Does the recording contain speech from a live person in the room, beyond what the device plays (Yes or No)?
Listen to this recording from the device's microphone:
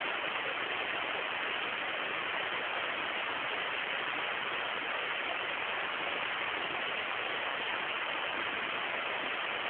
No